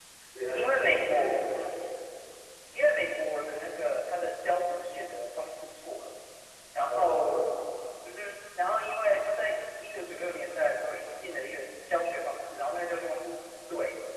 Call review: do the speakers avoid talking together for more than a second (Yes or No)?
No